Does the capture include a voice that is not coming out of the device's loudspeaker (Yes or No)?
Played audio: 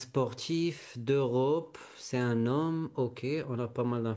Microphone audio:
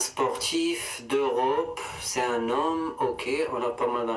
No